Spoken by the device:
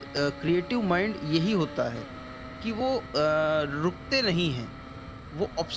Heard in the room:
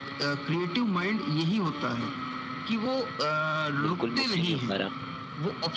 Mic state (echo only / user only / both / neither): both